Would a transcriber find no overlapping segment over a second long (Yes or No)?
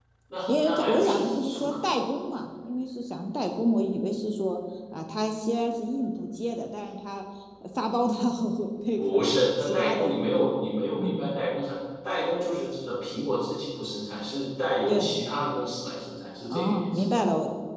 No